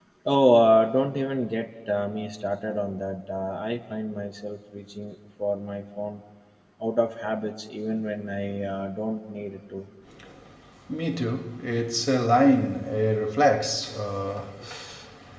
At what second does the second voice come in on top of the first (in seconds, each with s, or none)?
none